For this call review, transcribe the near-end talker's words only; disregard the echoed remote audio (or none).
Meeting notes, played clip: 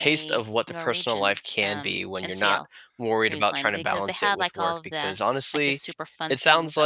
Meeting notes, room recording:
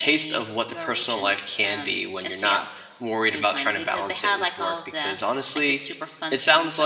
none